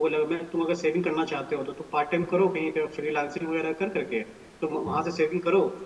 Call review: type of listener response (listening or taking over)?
listening